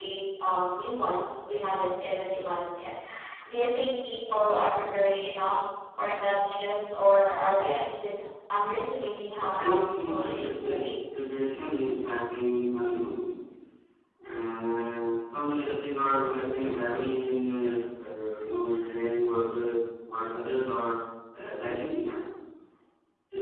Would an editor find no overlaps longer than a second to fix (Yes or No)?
No